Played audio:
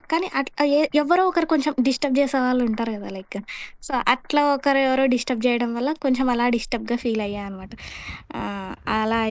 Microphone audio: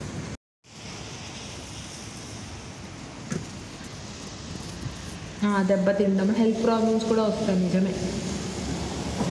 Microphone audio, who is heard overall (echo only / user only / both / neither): user only